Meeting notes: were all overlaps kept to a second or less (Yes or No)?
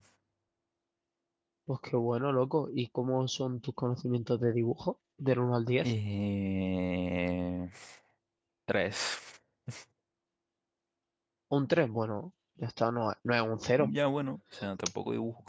Yes